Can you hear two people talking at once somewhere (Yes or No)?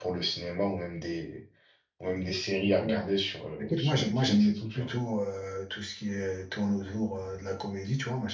Yes